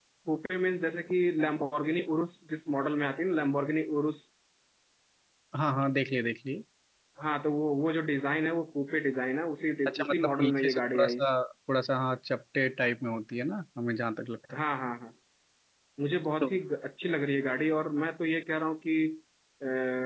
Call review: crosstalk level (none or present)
present